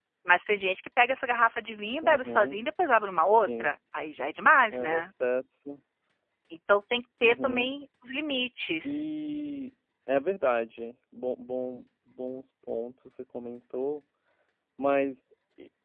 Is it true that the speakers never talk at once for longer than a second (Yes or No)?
Yes